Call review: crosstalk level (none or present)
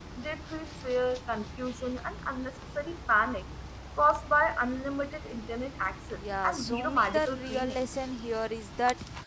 present